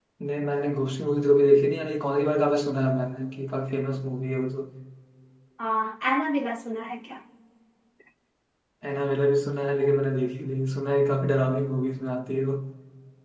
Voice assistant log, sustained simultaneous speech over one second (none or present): none